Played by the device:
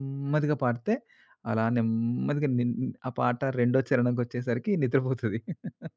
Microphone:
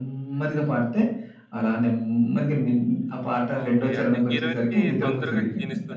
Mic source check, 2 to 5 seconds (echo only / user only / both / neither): both